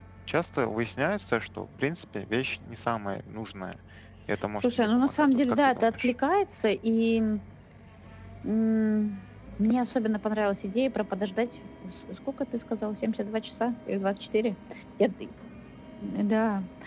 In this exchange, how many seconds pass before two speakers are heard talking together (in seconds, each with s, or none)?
4.6 s